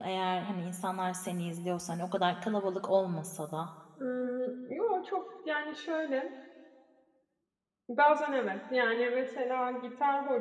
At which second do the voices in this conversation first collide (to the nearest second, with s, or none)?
none